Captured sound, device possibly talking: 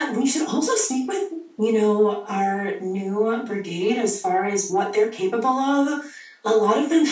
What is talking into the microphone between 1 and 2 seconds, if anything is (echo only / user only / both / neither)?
echo only